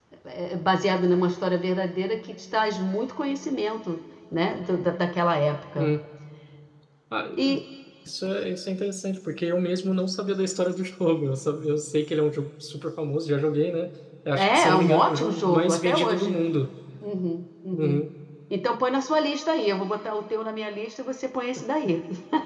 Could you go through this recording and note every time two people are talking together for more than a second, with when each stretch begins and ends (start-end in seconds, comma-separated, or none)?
14.3-16.4